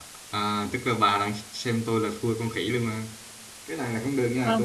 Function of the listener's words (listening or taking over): listening